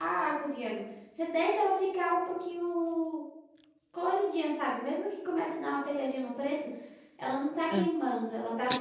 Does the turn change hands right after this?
No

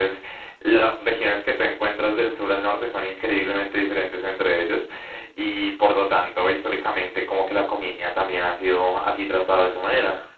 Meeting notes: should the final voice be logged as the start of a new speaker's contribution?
No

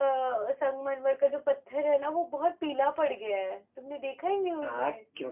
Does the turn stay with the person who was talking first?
No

